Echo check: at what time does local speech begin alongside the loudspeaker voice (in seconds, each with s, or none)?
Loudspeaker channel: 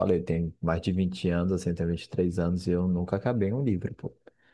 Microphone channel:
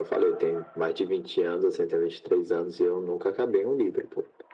none